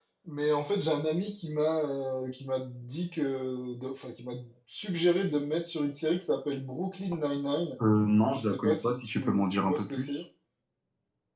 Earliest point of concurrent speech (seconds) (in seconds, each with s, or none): 8.3 s